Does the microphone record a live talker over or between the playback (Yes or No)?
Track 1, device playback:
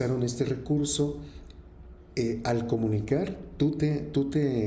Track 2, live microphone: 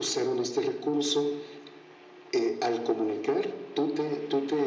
No